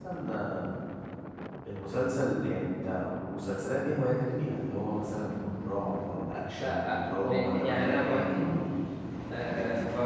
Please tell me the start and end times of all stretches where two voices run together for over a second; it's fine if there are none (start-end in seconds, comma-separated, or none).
6.6-8.5